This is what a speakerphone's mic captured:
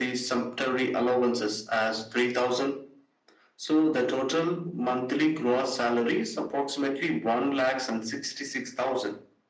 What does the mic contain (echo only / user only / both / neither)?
echo only